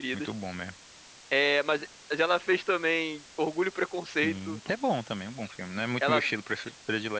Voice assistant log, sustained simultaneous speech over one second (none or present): none